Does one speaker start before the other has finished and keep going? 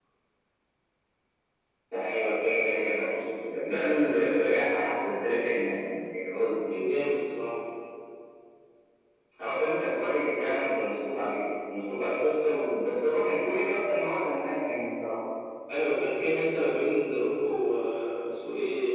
No

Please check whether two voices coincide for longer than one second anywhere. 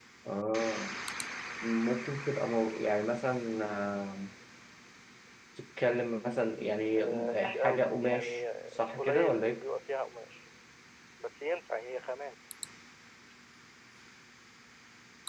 Yes, from 7.0 s

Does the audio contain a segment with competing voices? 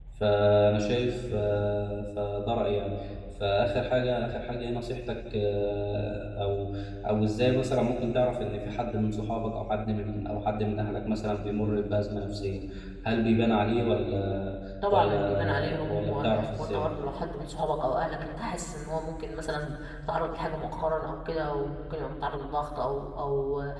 Yes, from 14.8 s

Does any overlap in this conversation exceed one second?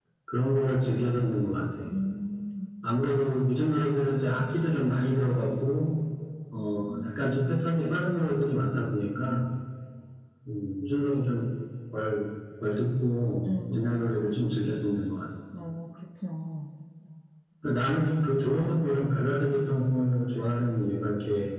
No

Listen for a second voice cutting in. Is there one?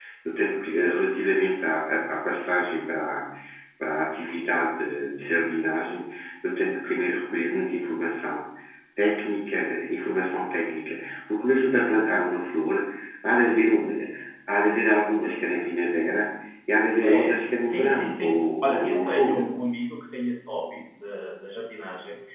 Yes, from 17.0 s

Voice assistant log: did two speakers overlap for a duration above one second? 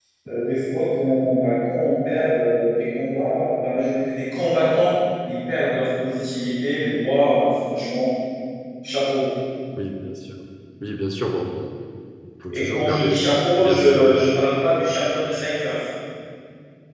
Yes, from 12.5 s

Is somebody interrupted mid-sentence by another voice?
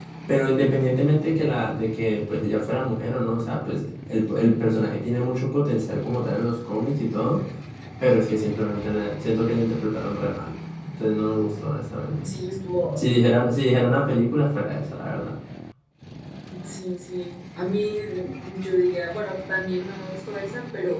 No

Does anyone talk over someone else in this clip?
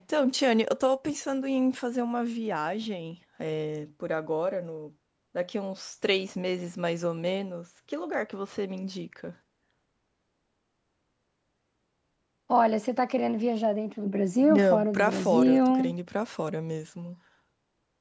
Yes, from 14.4 s

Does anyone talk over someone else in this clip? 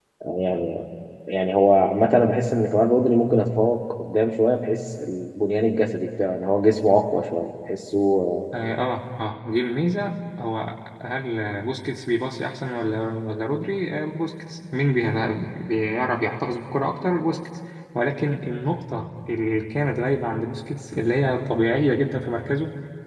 No

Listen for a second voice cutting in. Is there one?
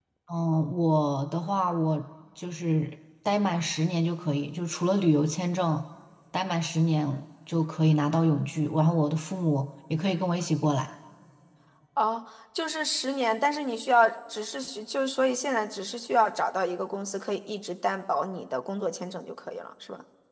No

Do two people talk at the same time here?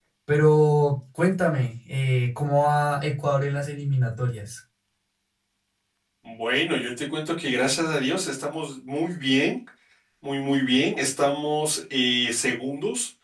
No

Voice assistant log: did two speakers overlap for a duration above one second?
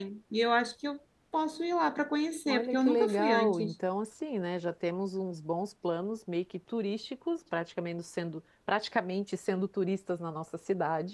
Yes, from 2.5 s

